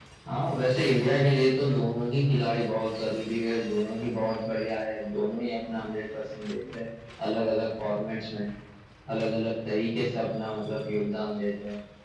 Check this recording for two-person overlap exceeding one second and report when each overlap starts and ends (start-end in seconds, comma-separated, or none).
none